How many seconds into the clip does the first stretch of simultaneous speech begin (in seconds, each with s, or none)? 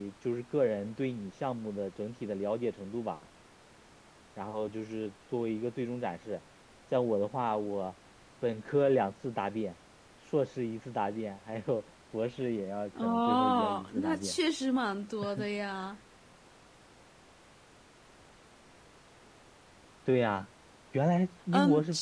13.0 s